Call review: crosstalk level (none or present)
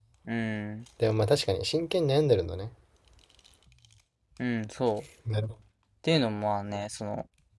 none